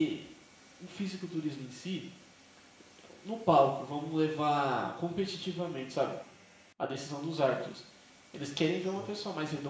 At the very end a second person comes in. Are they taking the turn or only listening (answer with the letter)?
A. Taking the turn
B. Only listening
B